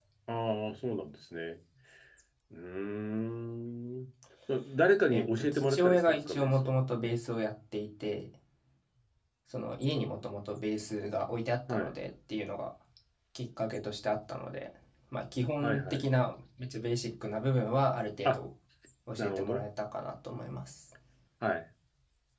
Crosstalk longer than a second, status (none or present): present